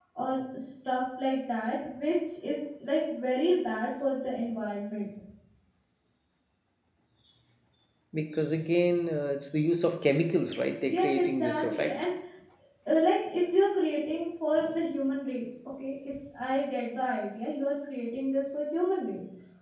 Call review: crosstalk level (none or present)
present